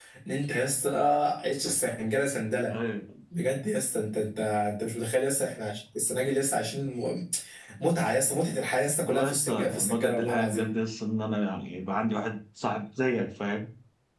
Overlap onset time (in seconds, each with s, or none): 9.1 s